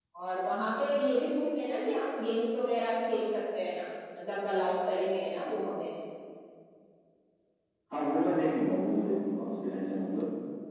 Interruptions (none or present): none